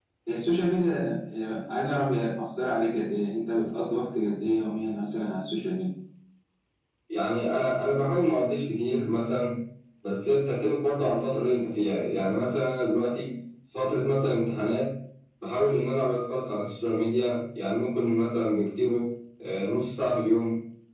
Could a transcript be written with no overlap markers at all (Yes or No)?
Yes